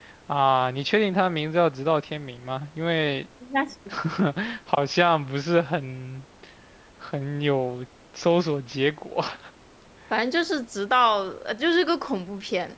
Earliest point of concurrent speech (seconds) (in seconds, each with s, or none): none